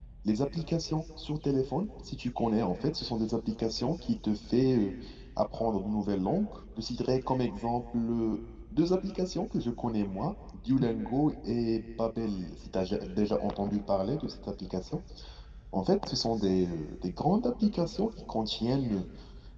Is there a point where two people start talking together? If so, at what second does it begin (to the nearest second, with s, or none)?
none